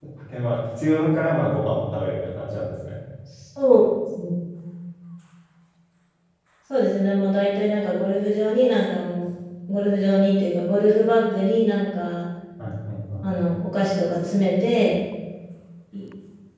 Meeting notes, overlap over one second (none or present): none